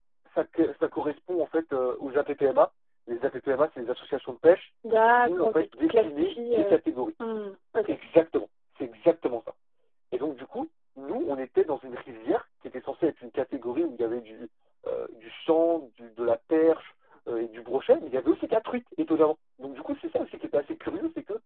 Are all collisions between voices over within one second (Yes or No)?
No